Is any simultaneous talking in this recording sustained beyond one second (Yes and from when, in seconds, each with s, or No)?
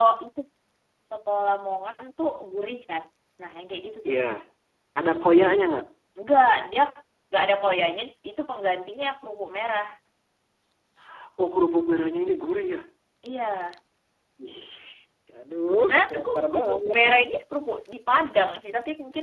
Yes, from 15.8 s